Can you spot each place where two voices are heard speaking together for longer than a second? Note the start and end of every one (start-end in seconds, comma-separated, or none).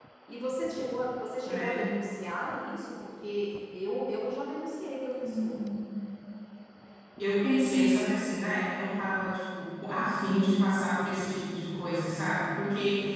none